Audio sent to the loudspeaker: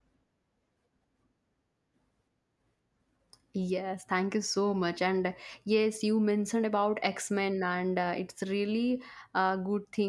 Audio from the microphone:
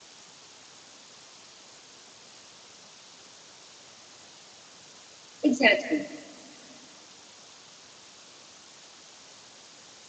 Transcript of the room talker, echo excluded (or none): exactly